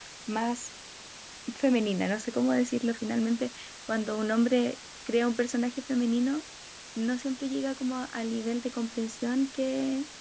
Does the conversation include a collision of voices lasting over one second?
No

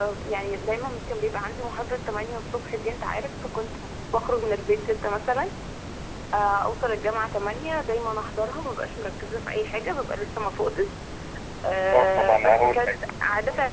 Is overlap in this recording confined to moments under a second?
No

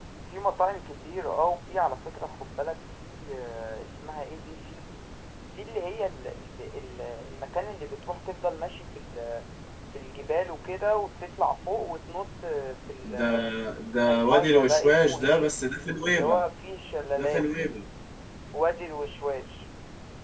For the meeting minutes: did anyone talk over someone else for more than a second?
Yes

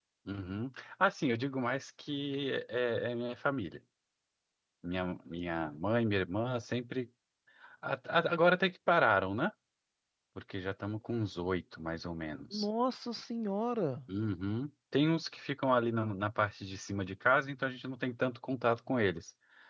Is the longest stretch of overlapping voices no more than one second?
Yes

